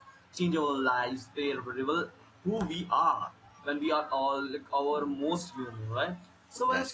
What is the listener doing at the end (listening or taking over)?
listening